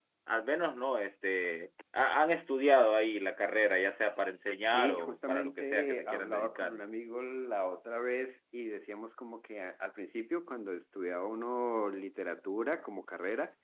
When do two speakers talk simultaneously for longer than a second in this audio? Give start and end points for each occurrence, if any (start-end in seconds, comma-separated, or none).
4.6-6.8